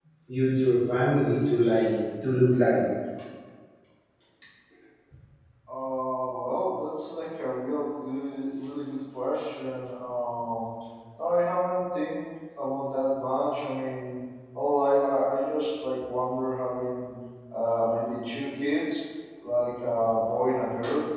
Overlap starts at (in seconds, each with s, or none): none